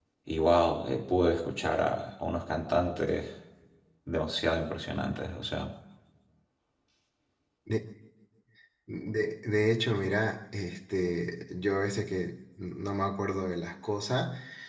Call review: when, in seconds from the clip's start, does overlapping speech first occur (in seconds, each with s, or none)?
none